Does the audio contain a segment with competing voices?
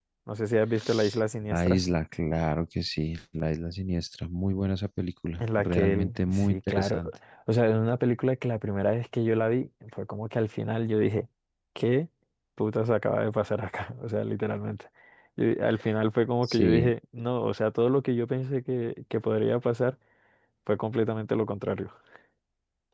Yes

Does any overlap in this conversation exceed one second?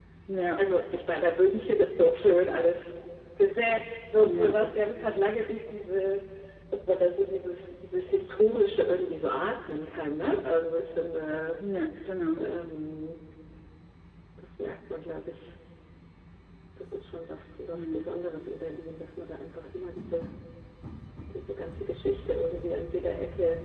No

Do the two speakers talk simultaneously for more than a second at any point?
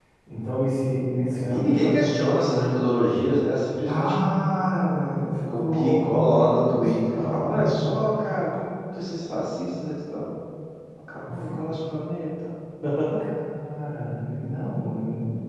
Yes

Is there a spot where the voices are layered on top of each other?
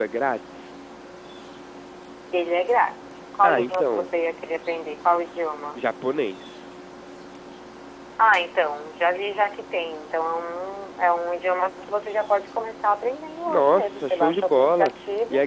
Yes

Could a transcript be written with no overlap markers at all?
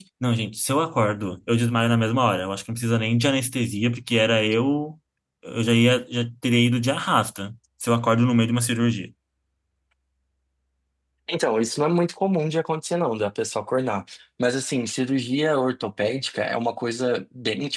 Yes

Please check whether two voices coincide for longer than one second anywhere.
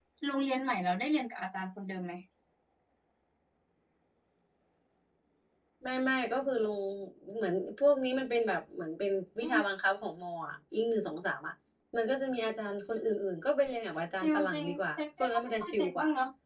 Yes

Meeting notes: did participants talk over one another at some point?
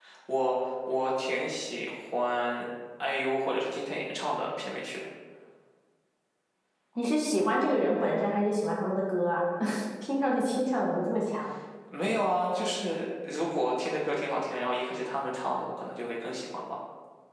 No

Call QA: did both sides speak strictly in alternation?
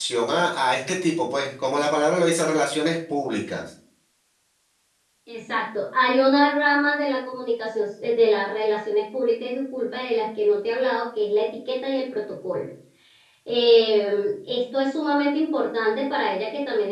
Yes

